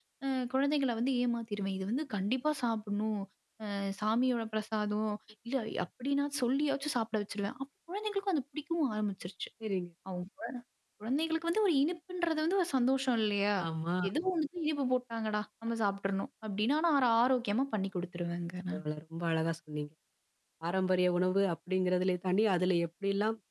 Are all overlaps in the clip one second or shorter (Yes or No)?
Yes